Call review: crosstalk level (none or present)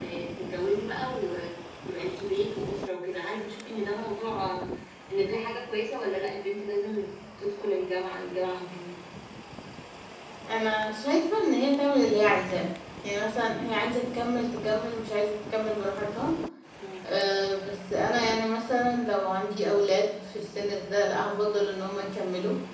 none